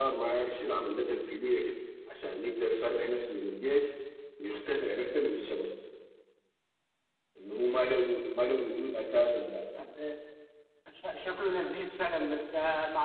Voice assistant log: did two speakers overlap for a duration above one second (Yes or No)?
No